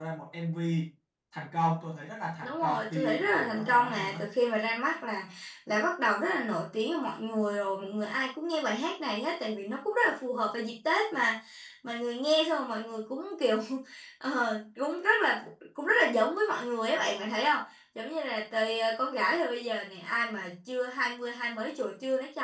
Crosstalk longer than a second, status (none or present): present